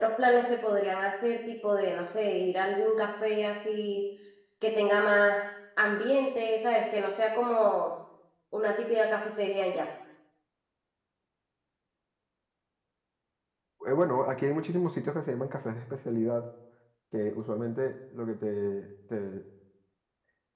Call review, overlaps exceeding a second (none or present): none